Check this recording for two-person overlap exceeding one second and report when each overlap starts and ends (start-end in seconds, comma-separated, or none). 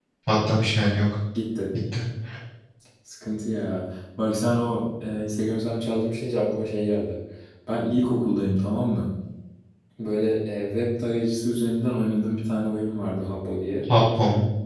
none